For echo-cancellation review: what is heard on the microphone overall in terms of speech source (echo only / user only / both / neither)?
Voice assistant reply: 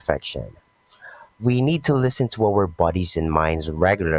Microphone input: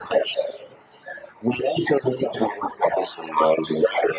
echo only